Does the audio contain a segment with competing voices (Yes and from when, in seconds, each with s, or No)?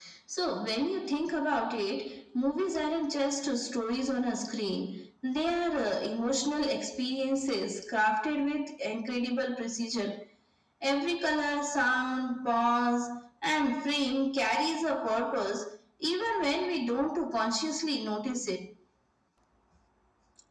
No